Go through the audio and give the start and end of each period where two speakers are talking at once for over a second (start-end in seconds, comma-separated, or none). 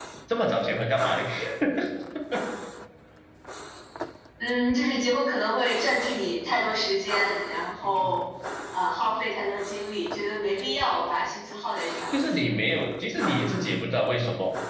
none